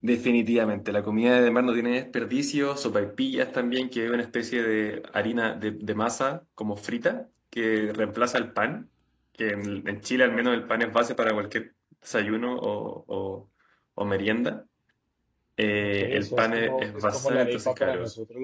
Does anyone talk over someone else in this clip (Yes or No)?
Yes